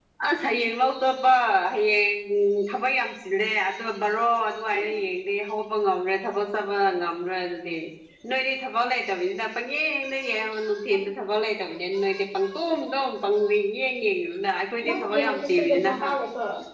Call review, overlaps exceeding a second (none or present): present